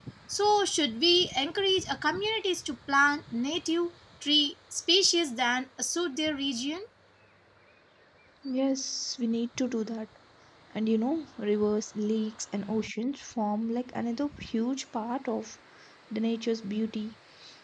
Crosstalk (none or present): none